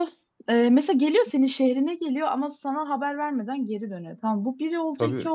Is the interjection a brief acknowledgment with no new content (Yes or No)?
Yes